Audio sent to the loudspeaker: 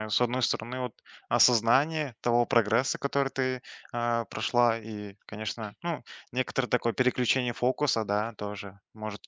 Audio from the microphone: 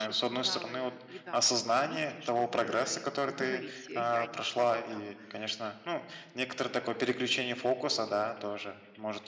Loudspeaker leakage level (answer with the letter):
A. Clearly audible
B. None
A